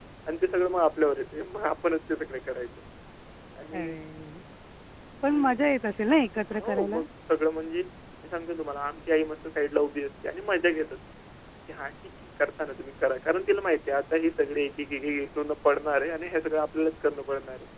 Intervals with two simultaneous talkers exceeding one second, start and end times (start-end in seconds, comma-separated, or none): none